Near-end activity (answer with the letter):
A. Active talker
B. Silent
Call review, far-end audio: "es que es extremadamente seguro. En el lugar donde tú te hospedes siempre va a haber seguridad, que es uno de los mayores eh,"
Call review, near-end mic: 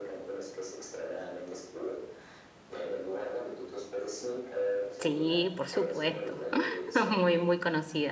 A